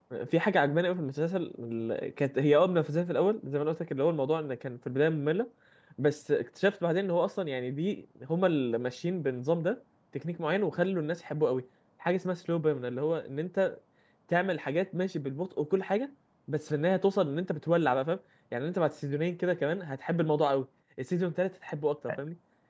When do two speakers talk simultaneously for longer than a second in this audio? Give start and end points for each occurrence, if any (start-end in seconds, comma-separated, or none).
none